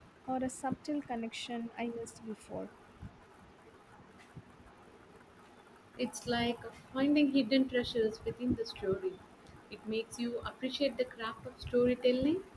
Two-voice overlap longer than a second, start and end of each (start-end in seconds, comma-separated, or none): none